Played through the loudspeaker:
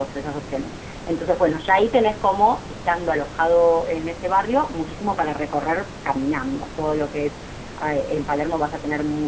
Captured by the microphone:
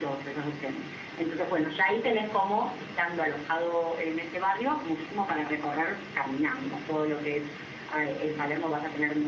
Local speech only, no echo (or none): none